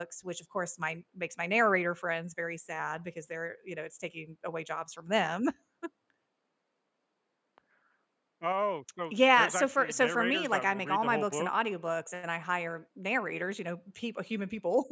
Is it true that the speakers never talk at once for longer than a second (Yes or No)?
No